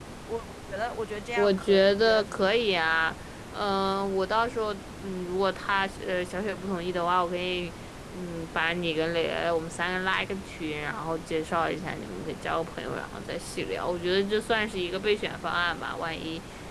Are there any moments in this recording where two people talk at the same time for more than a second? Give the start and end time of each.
1.4-2.6

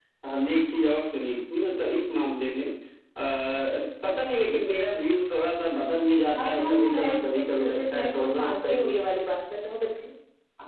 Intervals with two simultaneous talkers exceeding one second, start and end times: 6.4-9.0

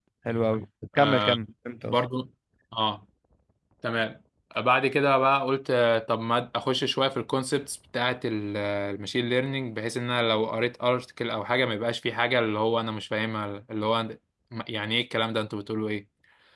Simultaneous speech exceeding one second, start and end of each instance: none

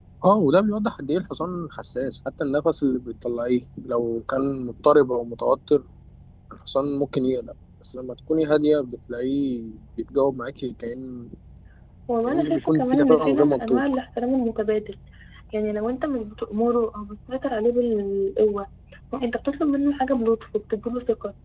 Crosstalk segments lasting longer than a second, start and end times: 12.3-13.8

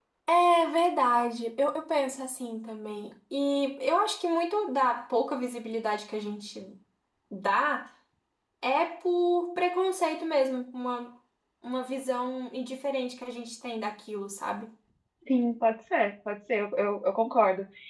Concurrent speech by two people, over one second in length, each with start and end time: none

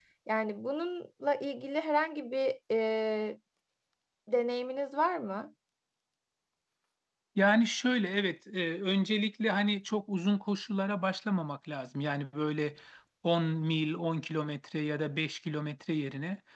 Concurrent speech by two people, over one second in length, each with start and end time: none

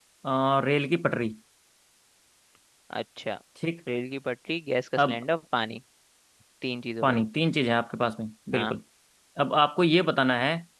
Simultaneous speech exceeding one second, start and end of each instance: none

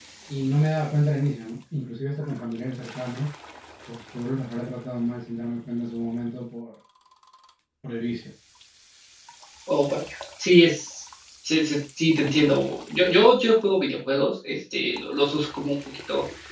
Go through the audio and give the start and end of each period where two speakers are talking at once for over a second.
none

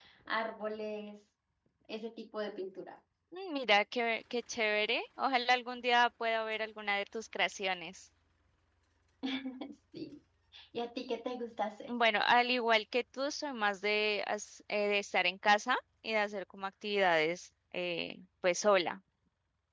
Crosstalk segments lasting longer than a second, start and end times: none

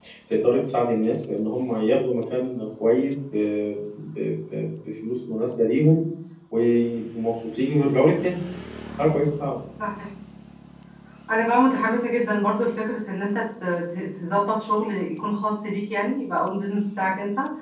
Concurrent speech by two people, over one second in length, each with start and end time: none

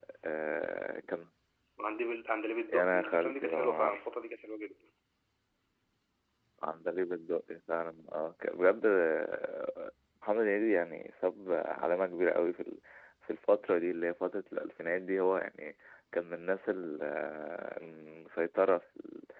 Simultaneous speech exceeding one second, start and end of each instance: 2.7-4.0

